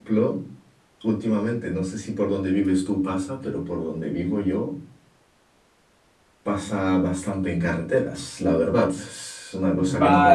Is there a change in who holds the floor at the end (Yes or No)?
Yes